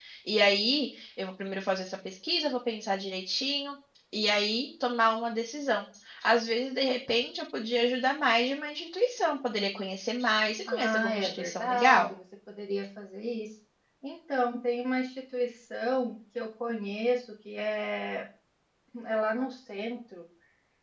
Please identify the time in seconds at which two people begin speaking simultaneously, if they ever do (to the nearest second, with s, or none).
11 s